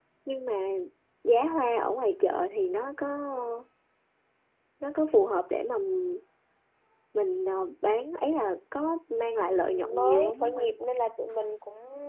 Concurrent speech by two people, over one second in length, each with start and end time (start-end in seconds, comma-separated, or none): 9.4-10.8